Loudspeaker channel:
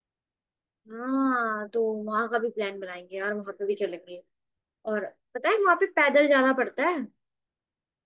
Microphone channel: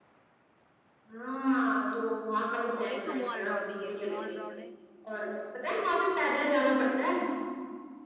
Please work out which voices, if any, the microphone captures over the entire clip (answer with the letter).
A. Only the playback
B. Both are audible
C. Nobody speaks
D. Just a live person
B